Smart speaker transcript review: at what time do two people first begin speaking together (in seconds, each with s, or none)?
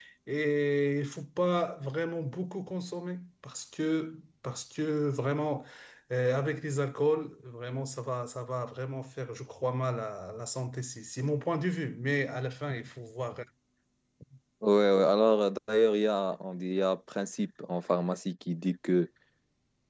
none